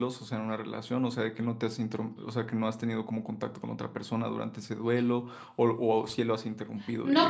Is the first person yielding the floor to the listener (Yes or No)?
Yes